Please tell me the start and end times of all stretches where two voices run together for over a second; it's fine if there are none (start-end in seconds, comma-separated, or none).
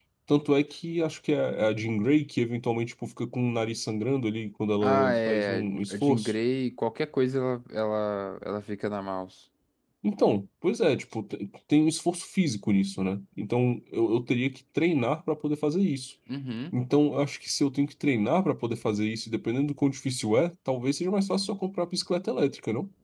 4.8-6.3